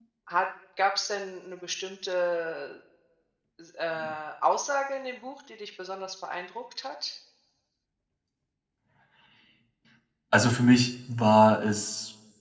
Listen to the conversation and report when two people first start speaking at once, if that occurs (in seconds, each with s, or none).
none